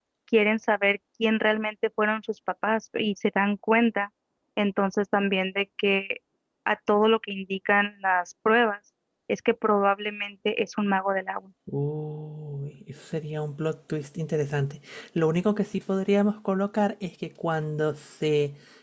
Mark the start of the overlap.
none

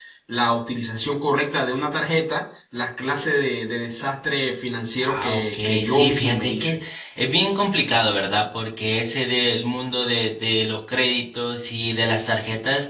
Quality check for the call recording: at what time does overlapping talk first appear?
5.0 s

